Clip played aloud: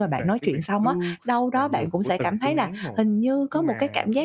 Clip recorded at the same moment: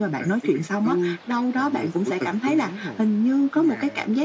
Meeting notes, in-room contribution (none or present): none